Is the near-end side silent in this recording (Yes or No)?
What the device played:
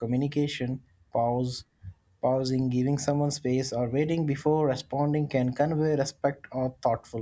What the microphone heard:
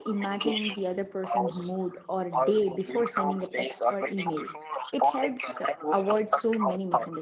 No